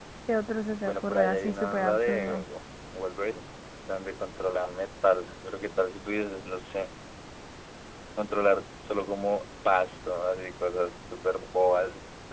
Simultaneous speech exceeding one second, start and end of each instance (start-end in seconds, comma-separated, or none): 0.8-2.4